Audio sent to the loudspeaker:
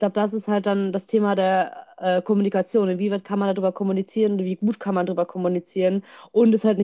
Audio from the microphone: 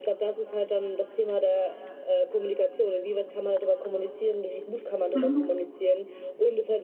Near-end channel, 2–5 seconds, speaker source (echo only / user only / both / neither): echo only